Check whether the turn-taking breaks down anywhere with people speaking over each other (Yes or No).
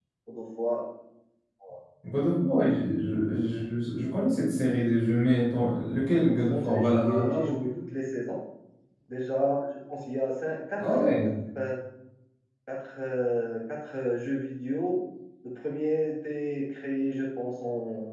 Yes